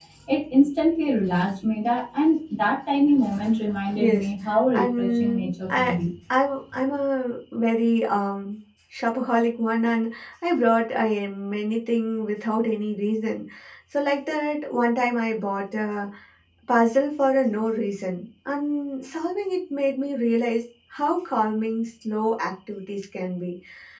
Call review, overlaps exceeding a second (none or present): present